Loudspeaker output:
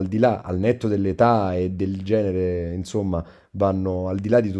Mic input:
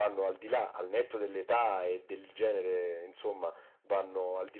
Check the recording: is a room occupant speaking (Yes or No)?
No